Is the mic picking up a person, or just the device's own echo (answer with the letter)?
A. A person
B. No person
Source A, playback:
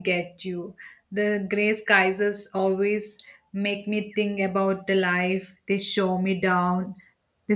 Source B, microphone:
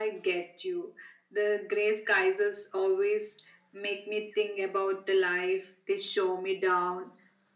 B